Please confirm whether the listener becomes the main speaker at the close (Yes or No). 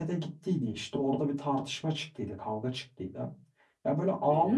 No